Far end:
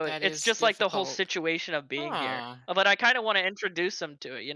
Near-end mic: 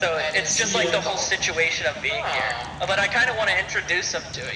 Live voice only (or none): Yeah.